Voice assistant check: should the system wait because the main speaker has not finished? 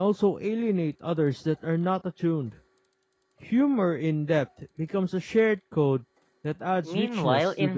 No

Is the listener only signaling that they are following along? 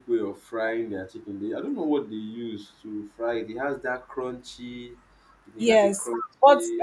No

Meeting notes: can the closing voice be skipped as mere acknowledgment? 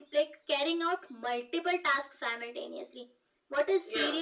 Yes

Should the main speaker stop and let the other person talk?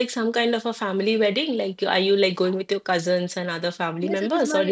Yes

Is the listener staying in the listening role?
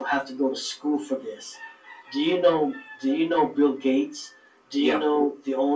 Yes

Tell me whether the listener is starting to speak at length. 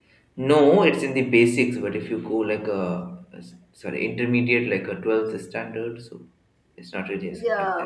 Yes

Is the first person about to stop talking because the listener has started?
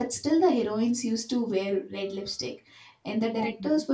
No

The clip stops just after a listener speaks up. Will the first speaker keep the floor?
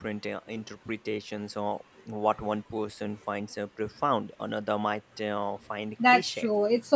No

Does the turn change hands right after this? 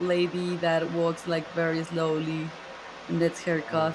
Yes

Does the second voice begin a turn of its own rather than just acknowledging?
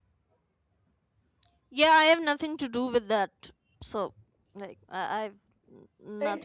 Yes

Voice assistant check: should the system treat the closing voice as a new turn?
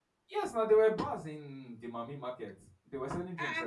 Yes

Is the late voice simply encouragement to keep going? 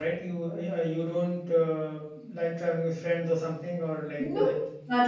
No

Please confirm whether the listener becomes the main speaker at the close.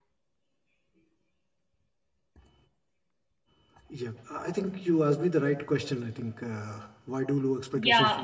Yes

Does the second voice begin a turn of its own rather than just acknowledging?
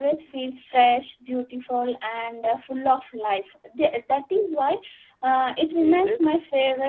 No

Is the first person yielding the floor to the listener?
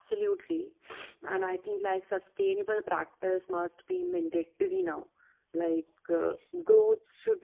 No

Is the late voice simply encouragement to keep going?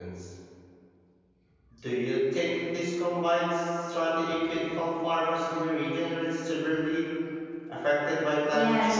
No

